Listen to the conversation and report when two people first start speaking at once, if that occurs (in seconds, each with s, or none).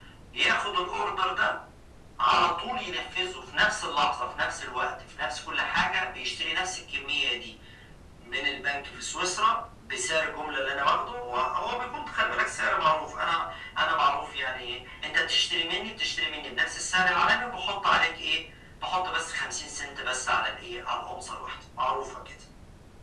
none